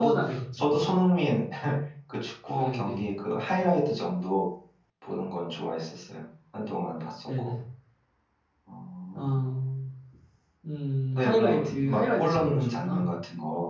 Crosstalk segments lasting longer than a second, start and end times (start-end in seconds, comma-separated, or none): 11.1-13.1